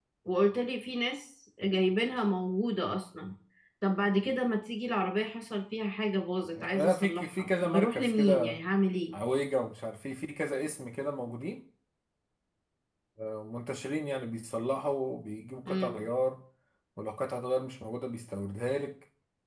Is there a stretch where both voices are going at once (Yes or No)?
Yes